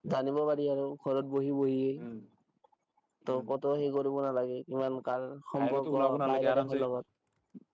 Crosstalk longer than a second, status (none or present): present